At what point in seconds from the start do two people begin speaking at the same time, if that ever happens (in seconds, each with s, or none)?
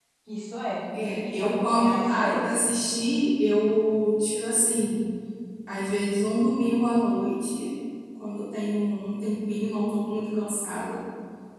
0.9 s